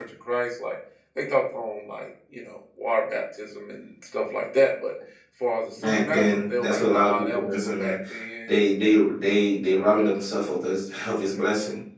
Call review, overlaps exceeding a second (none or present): present